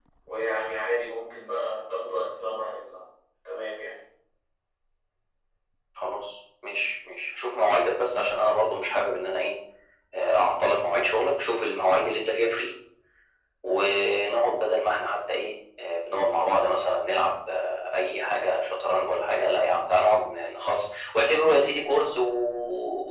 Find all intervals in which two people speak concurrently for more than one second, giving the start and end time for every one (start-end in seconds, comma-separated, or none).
none